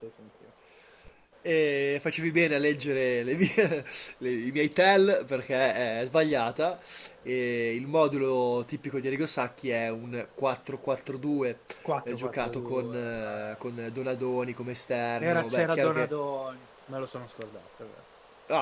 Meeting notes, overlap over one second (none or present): present